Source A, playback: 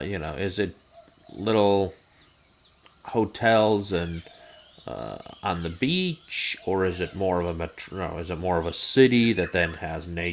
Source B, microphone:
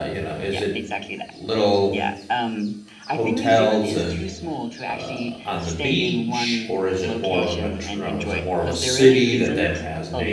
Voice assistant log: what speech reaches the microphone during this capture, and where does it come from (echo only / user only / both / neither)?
both